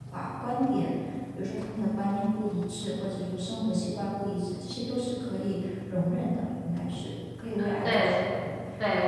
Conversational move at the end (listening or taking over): taking over